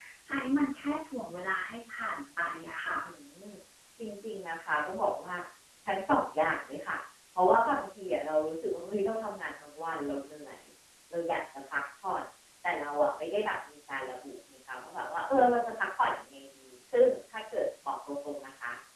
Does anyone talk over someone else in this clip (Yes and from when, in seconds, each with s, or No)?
No